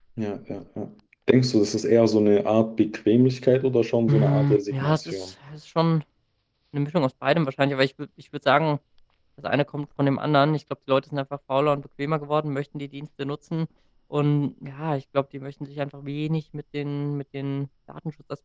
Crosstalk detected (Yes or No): Yes